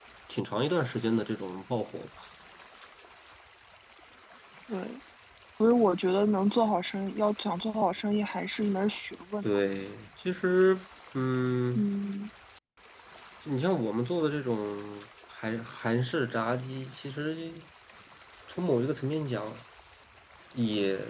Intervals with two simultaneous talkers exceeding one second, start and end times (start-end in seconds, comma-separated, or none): none